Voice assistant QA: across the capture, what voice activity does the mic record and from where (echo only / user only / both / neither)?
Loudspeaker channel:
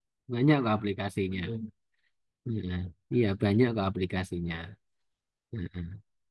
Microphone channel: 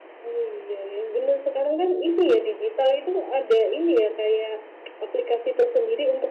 user only